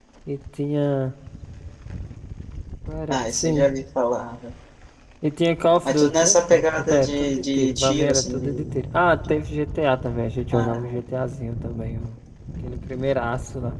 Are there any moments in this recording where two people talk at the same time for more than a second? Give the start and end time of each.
5.8-8.7

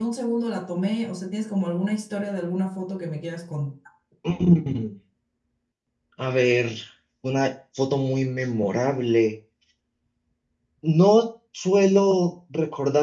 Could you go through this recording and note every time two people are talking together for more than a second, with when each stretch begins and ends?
none

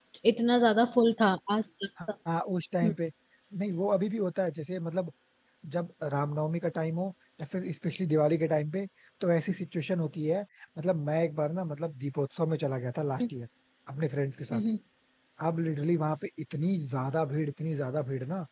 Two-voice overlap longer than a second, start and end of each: none

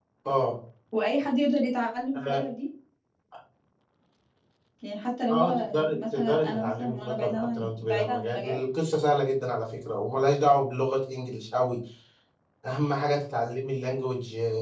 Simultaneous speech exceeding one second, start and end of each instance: 5.3-8.6

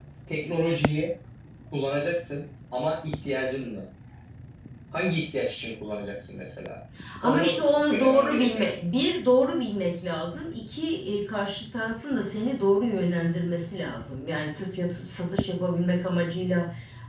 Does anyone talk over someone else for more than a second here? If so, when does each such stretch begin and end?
7.2-8.7

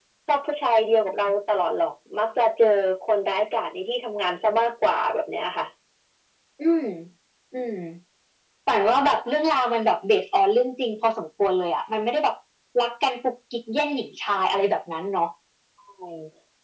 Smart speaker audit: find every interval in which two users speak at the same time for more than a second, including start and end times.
none

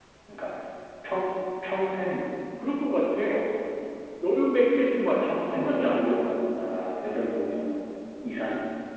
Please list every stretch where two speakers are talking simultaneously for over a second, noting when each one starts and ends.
5.0-6.3

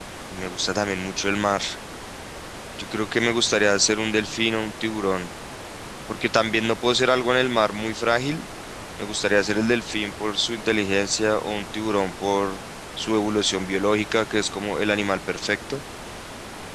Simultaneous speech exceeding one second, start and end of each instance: none

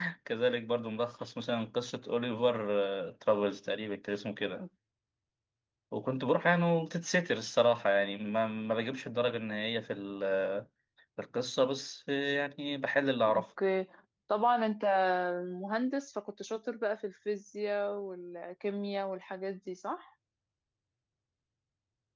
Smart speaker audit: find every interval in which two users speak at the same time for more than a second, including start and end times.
none

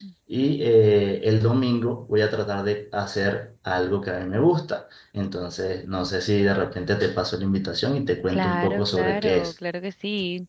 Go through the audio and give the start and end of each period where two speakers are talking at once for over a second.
8.3-9.5

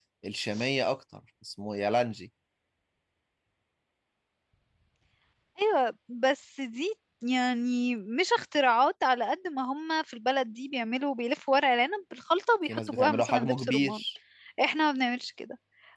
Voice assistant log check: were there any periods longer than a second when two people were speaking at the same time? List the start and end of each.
12.7-14.0

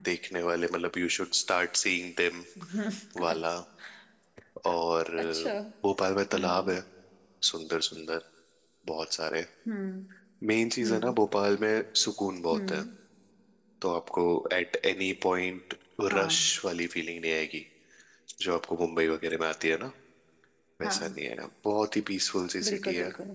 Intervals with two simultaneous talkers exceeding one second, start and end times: none

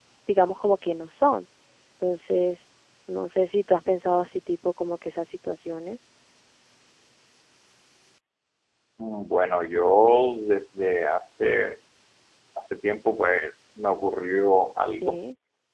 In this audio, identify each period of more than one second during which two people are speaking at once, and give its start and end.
none

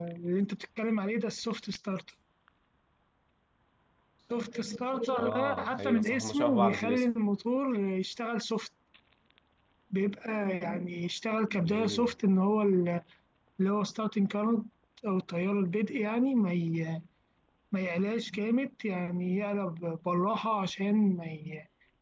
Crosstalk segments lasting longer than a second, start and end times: 5.2-7.0

